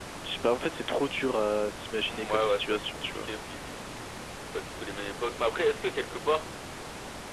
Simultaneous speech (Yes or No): Yes